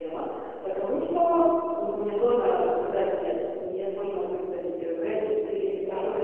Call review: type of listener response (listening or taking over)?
listening